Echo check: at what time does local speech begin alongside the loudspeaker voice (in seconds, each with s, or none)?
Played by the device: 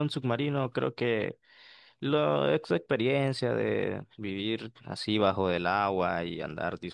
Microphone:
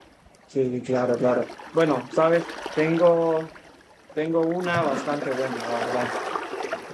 0.4 s